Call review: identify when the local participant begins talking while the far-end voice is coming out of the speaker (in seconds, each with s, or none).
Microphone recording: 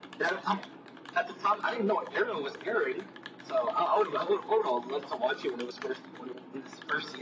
none